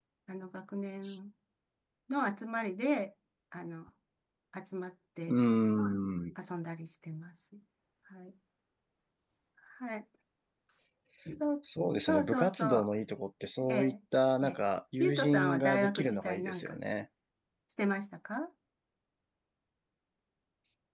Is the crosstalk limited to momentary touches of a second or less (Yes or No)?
No